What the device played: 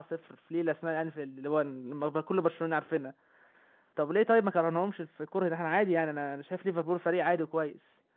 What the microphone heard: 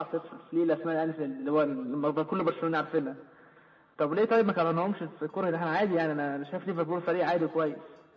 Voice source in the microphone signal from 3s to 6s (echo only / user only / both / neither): echo only